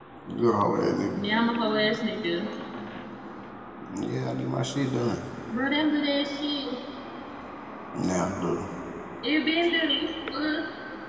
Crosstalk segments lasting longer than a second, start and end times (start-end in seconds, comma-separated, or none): none